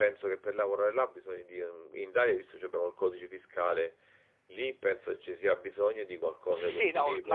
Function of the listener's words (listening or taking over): taking over